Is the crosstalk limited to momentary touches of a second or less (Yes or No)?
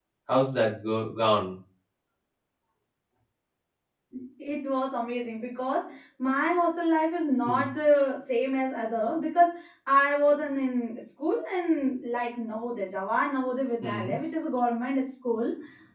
Yes